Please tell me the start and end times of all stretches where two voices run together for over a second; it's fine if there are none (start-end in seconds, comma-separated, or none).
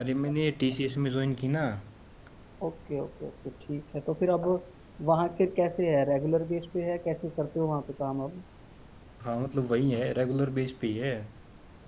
none